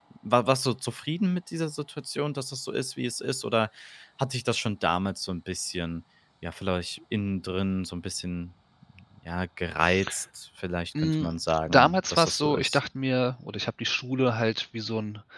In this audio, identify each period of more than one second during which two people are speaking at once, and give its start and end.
11.0-12.8

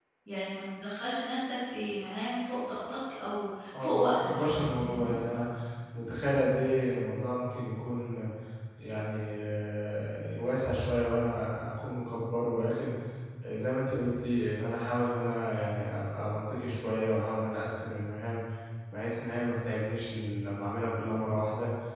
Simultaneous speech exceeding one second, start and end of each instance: 3.8-5.1

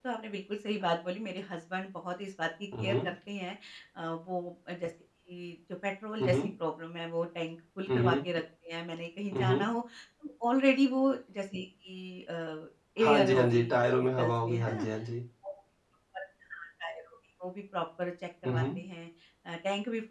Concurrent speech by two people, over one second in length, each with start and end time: 13.0-14.7

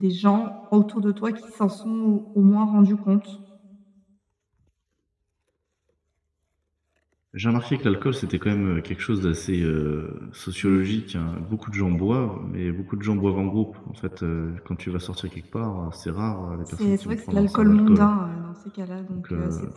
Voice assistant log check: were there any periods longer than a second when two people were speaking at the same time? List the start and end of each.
16.7-18.1

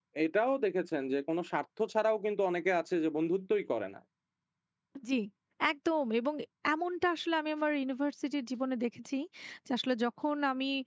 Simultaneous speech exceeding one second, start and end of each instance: none

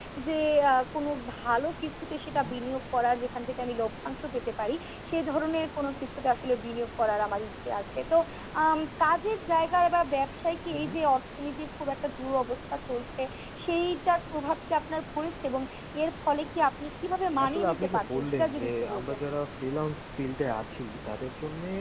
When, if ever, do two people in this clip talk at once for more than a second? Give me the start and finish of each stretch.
17.4-19.2

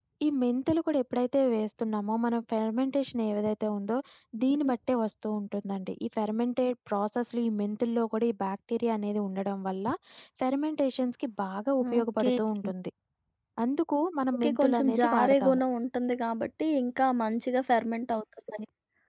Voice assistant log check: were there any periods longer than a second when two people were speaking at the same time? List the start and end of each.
14.3-15.6

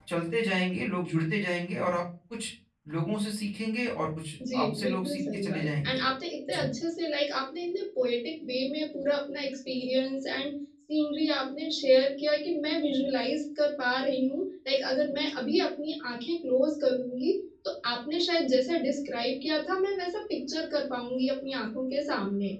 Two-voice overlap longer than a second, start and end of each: 4.5-6.0

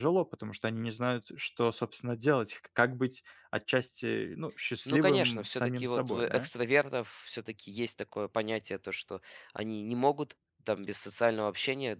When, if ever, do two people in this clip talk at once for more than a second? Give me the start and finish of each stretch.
4.9-6.5

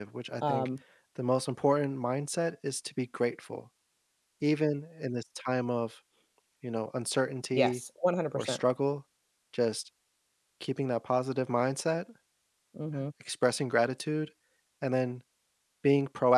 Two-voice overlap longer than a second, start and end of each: none

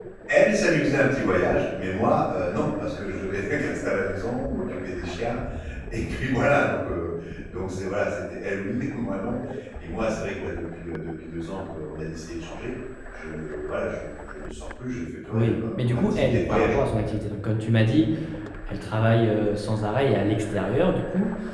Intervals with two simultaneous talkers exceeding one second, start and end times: 15.3-16.8

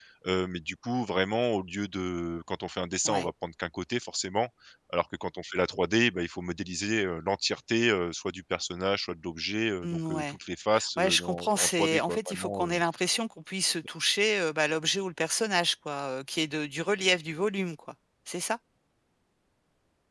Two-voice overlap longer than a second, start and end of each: 11.0-12.8

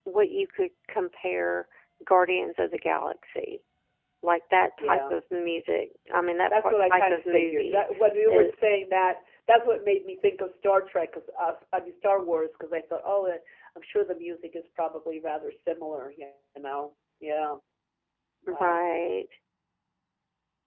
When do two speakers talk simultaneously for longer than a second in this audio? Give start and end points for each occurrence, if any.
6.6-7.8

